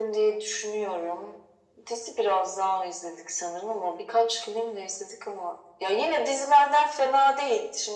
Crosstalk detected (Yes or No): No